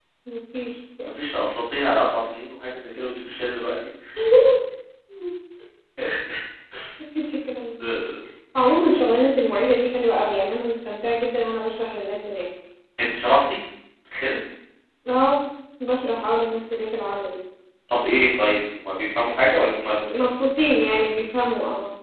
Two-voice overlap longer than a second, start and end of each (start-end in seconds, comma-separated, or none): none